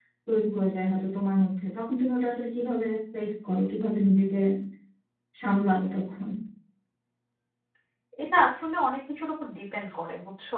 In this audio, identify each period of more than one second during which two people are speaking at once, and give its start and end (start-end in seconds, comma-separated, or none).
none